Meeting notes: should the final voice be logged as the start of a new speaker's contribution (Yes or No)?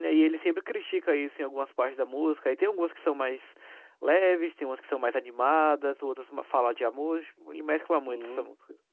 Yes